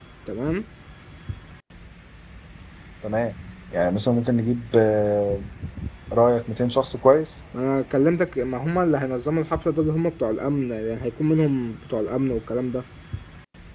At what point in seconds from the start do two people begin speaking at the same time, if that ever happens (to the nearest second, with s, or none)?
none